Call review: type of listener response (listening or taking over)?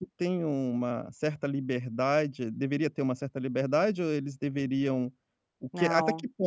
listening